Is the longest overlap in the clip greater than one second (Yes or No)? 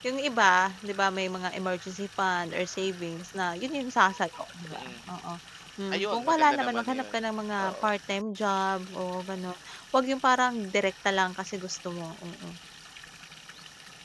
Yes